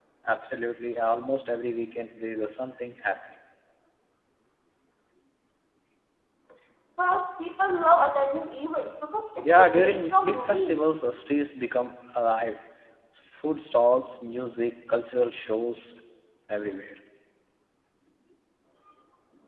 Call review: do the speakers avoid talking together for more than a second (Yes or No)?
No